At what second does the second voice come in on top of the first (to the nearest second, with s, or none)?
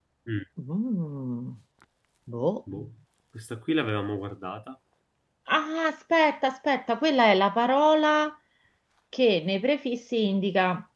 none